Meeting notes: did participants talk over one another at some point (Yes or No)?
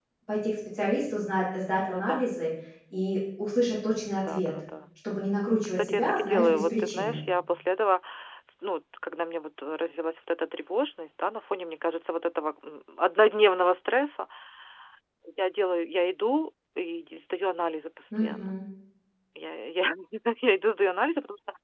Yes